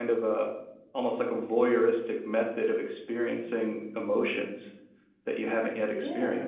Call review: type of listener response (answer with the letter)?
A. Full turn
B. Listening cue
A